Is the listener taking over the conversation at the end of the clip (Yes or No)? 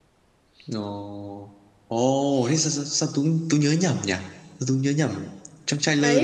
Yes